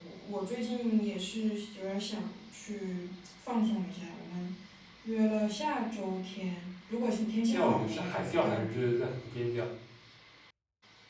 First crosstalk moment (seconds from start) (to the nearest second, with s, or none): 7 s